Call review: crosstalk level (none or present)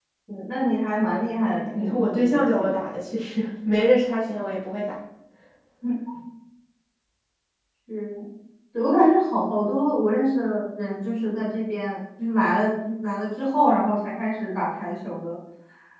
present